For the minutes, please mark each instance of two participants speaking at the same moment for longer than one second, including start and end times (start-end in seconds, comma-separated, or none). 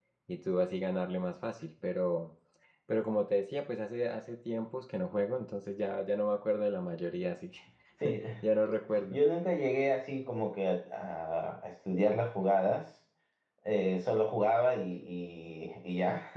none